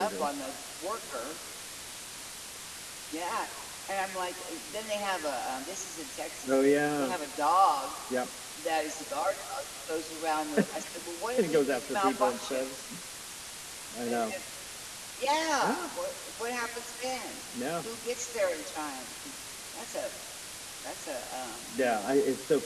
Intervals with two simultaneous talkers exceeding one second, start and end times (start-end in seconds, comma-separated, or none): 11.4-12.6